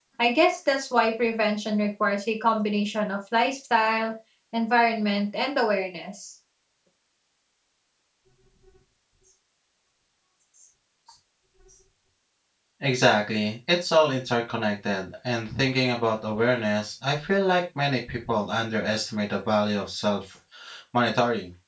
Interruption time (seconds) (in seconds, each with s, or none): none